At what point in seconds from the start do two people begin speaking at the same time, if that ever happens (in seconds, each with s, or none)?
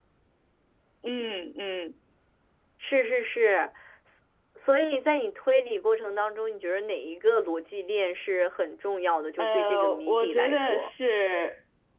9.4 s